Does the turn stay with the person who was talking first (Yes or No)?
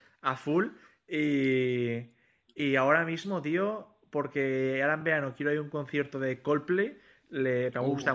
Yes